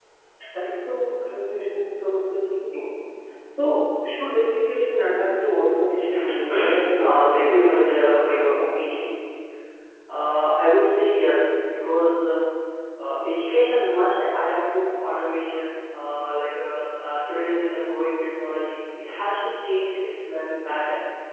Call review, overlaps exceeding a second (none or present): present